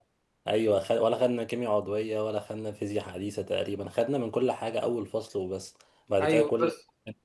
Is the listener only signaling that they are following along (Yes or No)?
No